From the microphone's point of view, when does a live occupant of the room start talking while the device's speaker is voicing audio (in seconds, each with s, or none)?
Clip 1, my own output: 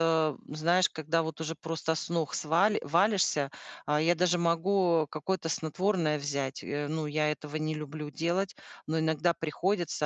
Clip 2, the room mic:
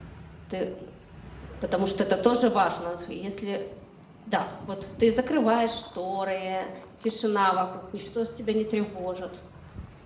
0.5 s